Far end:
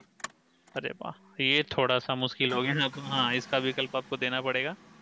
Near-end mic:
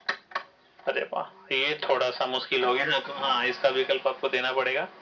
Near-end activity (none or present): none